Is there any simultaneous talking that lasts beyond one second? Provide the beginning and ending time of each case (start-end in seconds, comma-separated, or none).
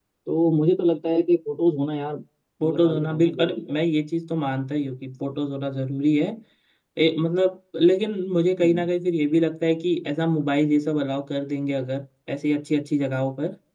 2.6-3.8